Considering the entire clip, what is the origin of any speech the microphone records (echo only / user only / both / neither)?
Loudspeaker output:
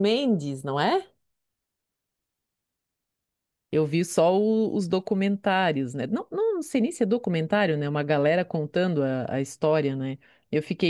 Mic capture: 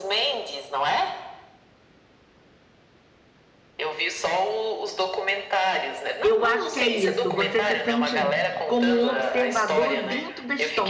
both